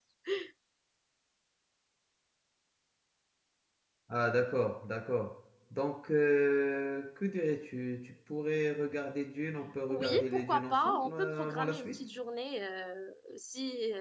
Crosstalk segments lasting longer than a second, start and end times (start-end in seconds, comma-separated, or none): 9.9-12.0